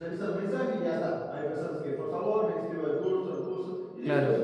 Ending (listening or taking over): listening